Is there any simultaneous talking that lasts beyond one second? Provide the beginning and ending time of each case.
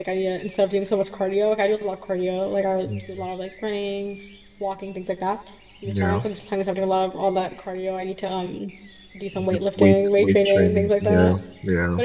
9.3-11.3

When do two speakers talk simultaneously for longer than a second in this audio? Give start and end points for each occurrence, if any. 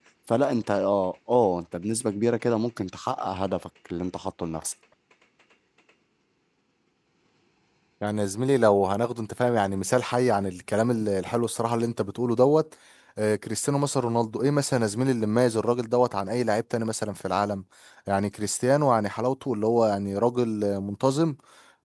none

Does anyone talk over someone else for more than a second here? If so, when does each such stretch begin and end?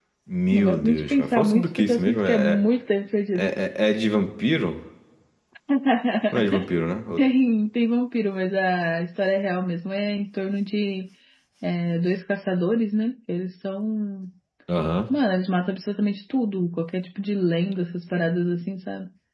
0.5-2.6

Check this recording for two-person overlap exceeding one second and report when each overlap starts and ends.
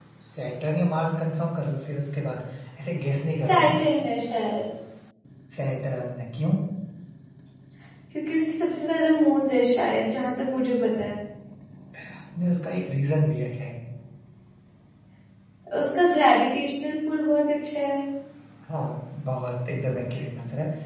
none

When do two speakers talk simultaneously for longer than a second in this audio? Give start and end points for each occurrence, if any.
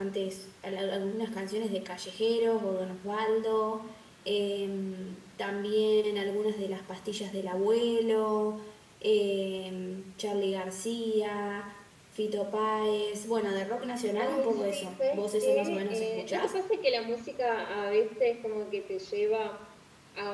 14.2-16.6

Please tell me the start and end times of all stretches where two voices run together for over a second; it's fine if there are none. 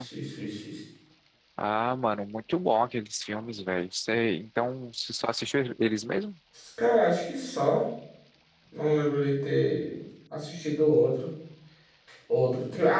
none

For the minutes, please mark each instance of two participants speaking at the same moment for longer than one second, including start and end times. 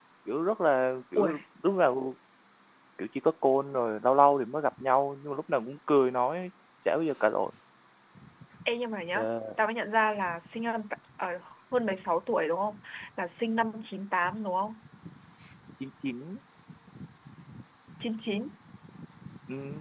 none

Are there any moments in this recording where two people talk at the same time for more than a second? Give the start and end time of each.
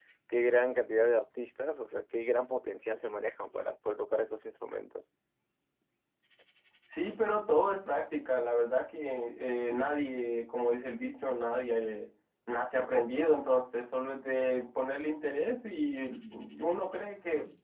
none

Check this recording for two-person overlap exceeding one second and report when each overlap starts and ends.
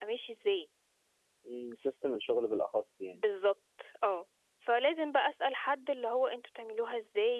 none

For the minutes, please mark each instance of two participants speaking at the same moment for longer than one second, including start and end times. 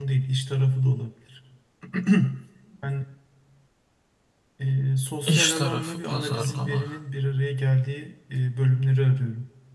5.3-6.9

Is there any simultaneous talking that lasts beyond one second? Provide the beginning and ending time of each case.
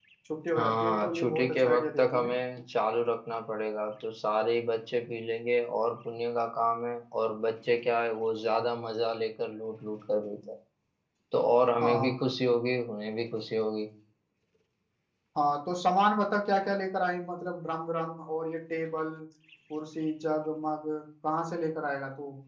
0.6-2.3

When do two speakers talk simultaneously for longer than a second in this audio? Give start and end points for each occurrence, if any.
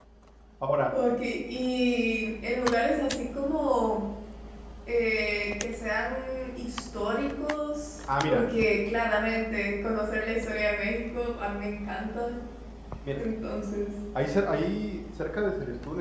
none

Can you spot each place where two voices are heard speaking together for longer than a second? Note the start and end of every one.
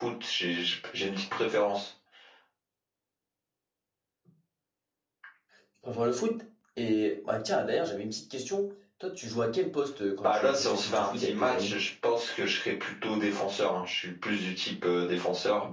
10.2-11.8

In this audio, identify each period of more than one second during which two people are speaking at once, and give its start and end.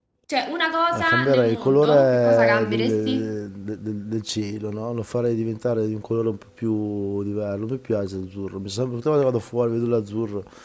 0.9-3.3

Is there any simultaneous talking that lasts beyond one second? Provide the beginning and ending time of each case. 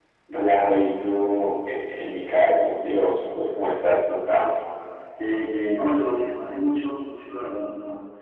none

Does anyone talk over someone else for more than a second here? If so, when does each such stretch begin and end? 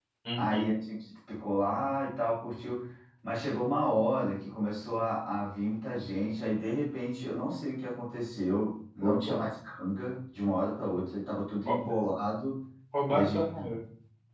none

